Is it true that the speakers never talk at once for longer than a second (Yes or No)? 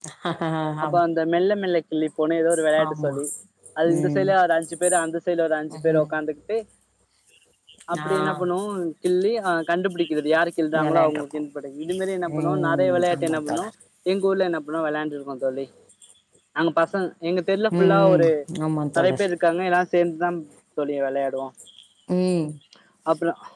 No